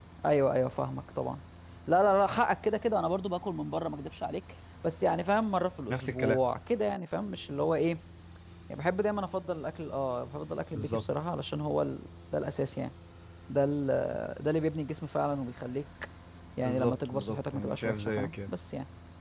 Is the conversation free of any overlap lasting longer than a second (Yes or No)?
No